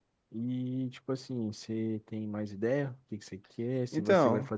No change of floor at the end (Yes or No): Yes